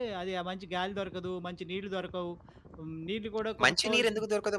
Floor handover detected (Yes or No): Yes